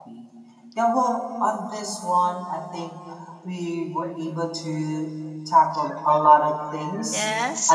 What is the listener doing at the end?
listening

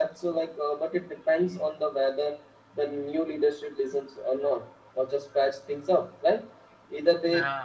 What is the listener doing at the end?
listening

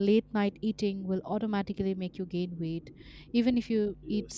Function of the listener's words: listening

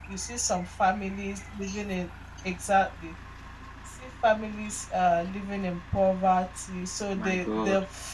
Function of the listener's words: listening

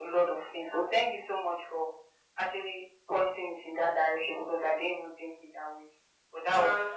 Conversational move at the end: listening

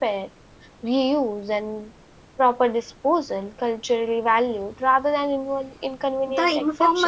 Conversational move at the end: taking over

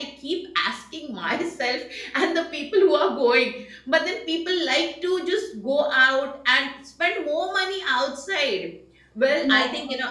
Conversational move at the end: listening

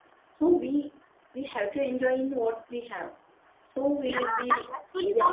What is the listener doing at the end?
taking over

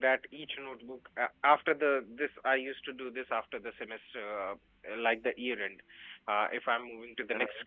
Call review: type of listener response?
listening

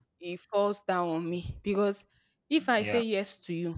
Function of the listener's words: listening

